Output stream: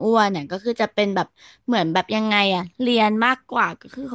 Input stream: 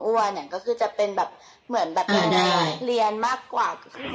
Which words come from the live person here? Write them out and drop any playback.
อ่าได้

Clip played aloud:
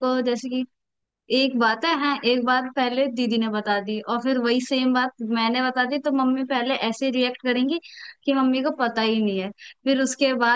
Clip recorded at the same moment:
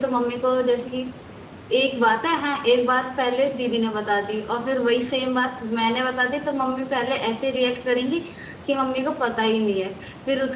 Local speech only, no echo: none

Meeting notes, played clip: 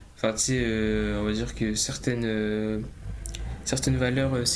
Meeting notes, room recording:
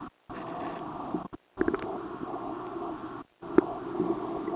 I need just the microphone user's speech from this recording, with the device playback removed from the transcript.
none

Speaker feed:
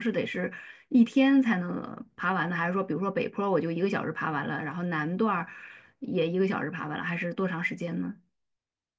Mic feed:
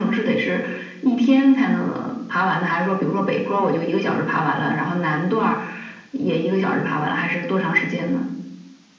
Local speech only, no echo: none

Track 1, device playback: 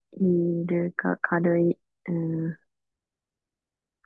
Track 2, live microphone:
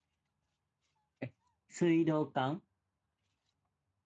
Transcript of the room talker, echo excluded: え、水道管

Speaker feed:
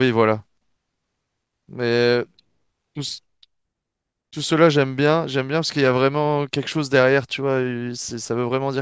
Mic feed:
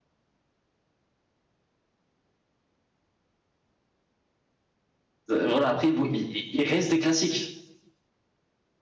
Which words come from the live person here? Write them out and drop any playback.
euh, Voilà, après, bon, il il- il reste des classiques.

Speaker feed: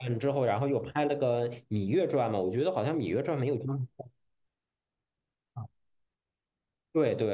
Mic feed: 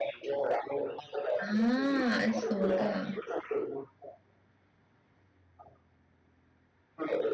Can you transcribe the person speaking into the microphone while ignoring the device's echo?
啊，so ga，

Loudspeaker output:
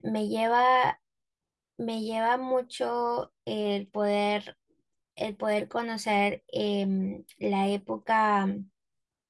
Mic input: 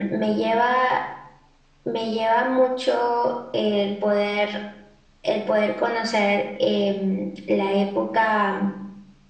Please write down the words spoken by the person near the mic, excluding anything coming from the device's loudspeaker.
none

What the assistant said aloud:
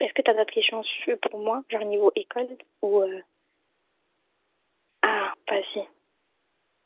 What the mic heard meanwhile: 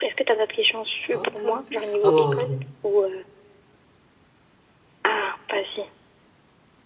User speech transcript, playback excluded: ah, t'as vu? Alors,

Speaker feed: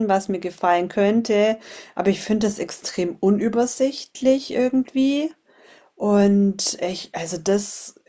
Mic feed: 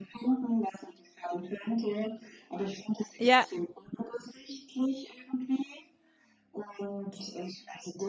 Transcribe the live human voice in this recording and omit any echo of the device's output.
ja,

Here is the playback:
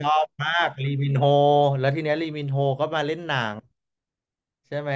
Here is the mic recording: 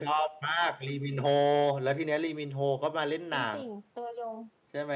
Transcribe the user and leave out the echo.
เป็นติ่งตัวยง

